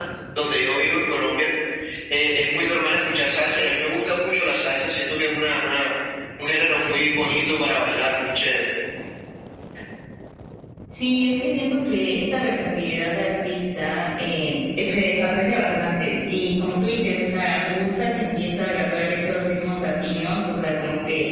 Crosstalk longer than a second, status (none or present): none